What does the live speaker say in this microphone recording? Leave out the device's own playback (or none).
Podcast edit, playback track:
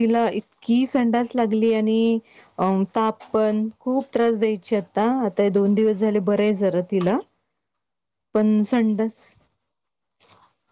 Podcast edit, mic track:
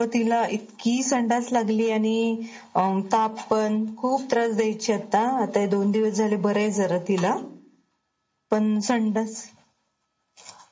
none